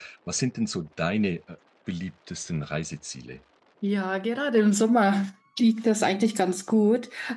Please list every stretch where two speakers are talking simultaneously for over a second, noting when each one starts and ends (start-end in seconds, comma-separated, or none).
none